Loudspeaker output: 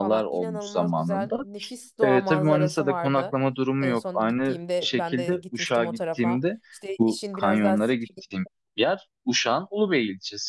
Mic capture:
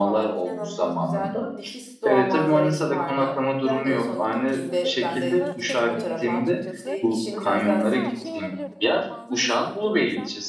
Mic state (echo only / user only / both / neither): both